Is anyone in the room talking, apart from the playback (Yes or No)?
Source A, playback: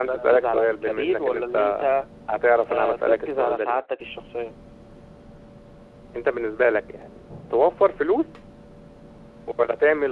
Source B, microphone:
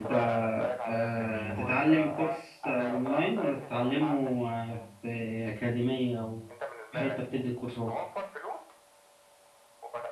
Yes